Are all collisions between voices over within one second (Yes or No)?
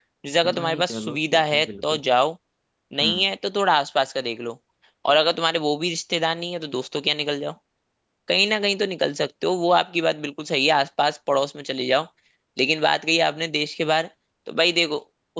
No